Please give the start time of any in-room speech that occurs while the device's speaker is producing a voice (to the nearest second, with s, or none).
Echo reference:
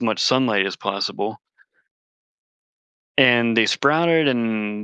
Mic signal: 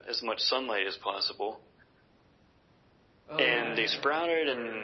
3 s